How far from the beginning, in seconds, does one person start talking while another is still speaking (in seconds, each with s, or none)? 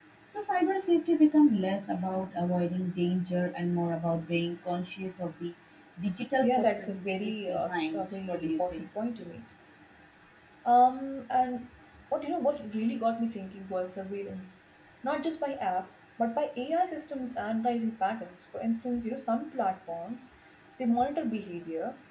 6.4 s